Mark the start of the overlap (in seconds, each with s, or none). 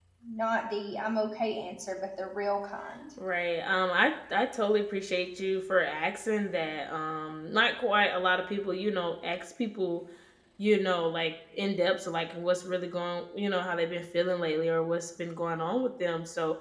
none